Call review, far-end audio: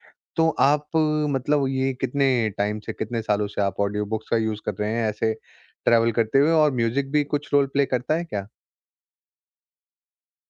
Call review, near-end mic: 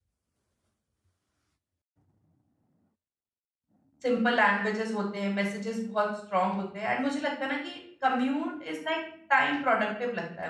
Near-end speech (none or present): present